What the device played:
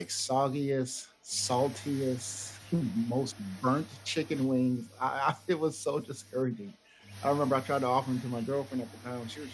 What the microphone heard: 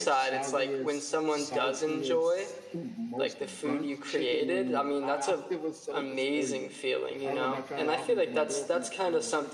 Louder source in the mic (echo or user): user